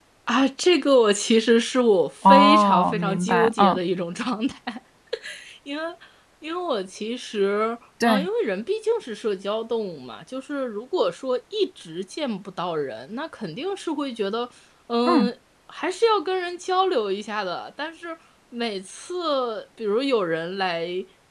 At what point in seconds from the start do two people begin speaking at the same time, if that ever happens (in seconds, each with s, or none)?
2.2 s